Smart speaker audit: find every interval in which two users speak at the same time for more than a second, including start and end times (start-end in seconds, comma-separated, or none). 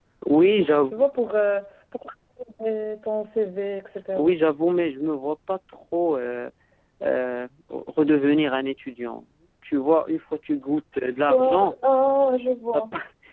none